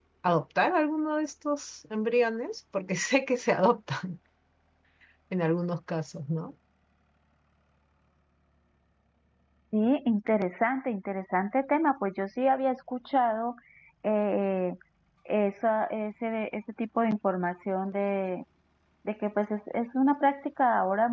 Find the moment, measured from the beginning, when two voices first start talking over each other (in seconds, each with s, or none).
none